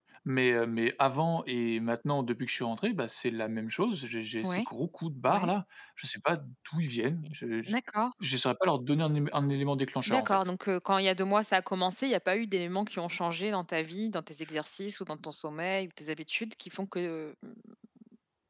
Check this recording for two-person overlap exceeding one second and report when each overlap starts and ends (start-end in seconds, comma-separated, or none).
none